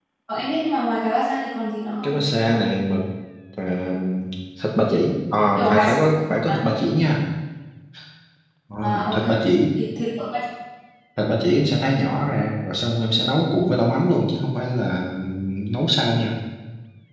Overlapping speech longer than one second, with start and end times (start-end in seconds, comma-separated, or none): none